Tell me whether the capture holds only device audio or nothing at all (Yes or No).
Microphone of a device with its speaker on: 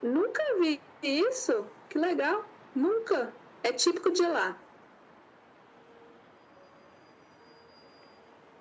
Yes